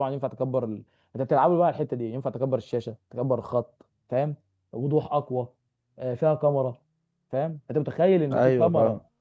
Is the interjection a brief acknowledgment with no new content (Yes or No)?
Yes